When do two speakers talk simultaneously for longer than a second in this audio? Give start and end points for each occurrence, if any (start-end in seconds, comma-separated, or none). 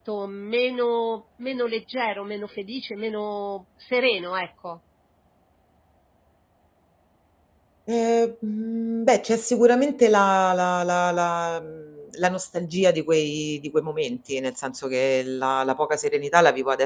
none